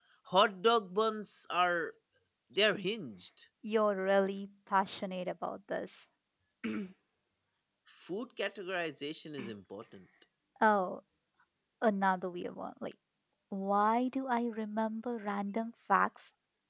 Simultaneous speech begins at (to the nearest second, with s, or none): none